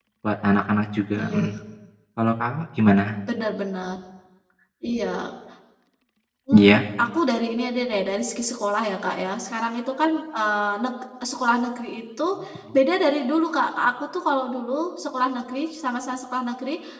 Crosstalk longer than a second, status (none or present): none